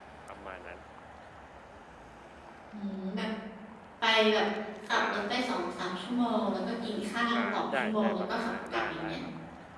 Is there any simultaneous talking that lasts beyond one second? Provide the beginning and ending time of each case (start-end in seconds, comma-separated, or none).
7.4-9.2